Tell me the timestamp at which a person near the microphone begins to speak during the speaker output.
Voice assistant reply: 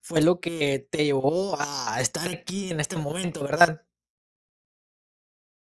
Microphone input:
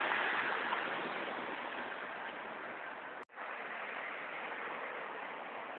none

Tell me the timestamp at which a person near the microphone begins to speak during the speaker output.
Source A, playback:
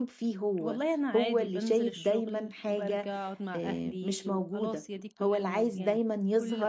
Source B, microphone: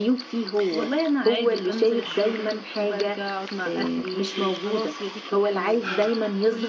none

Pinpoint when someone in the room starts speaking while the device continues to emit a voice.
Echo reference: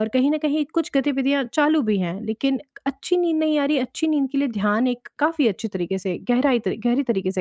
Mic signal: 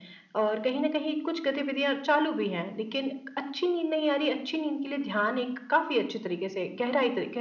none

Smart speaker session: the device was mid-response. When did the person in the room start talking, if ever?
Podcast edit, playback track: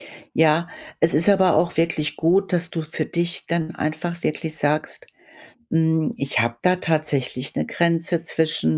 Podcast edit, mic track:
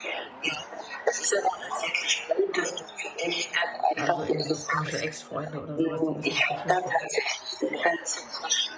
4 s

